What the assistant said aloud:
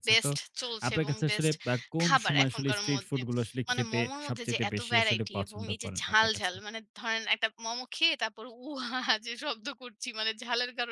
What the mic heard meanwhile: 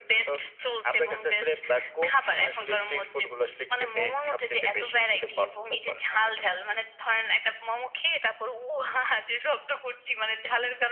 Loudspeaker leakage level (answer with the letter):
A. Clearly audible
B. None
A